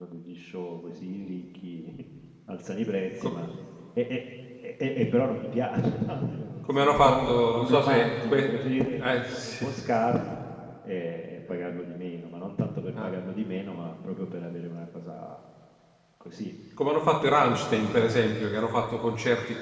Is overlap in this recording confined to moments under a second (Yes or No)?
No